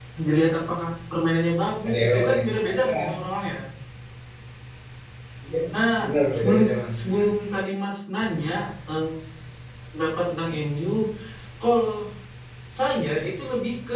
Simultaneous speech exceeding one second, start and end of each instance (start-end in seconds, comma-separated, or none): 1.9-3.3